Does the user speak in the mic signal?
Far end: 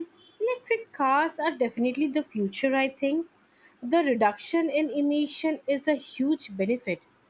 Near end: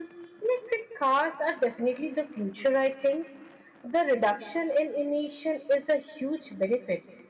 No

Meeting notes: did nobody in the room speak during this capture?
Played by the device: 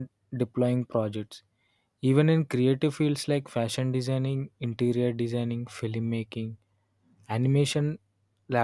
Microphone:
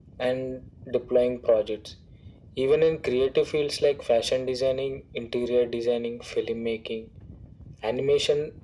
Yes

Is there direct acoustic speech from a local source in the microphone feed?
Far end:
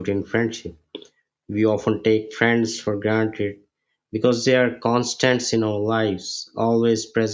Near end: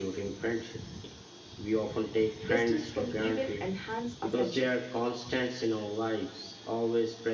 Yes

